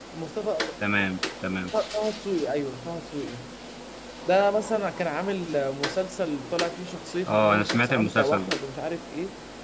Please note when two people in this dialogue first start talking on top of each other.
7.3 s

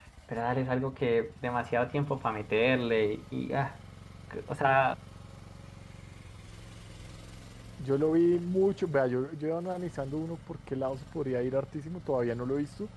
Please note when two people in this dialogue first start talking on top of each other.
none

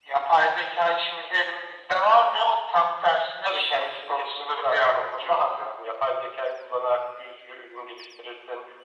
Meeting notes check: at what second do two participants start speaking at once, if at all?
3.4 s

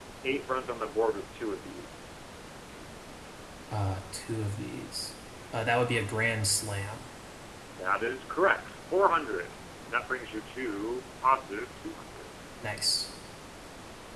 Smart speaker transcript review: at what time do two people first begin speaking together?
none

